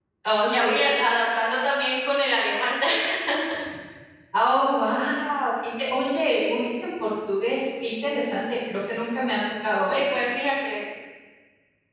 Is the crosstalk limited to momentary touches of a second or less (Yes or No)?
Yes